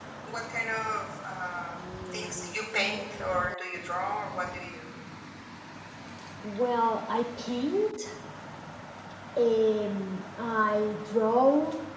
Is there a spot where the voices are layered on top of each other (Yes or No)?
No